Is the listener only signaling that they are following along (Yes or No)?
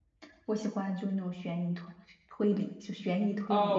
No